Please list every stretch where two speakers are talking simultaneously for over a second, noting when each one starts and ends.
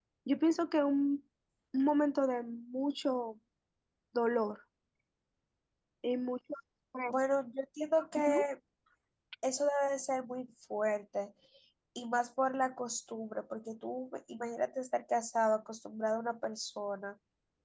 none

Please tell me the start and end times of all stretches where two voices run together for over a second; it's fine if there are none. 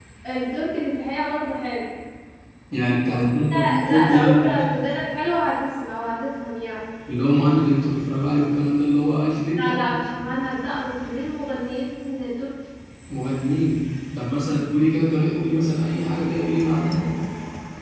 3.0-4.6

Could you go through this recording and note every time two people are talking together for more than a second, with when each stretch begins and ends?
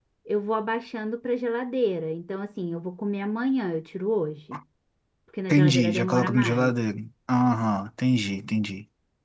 5.5-6.7

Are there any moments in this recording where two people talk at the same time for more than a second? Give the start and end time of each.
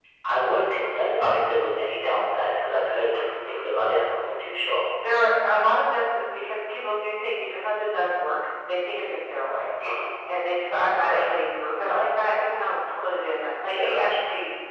none

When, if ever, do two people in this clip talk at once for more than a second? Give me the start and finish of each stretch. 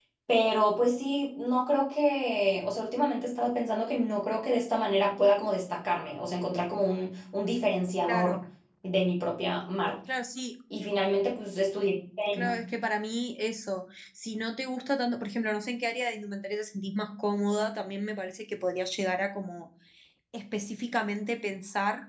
none

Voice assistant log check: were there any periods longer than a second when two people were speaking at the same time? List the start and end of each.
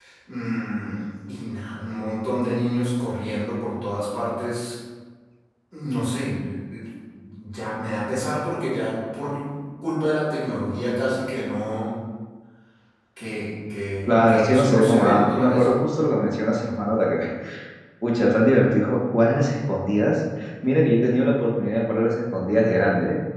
14.1-15.8

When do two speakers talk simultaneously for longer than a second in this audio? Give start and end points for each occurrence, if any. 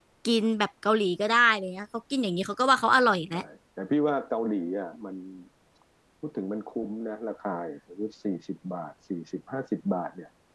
none

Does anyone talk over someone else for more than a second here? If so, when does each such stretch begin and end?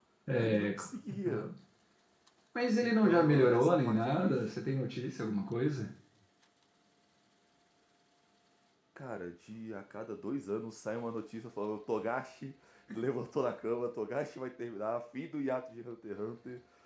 2.8-4.5

